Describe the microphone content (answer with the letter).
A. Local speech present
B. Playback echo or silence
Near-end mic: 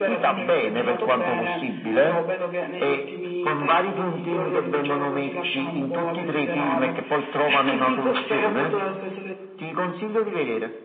B